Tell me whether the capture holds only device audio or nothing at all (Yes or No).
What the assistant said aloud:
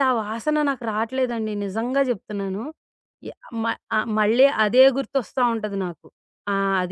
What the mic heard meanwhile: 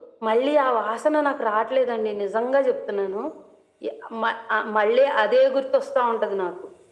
Yes